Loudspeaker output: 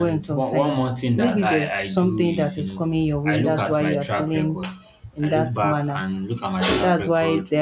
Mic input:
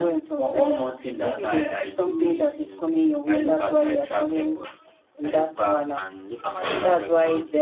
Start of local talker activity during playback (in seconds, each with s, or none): none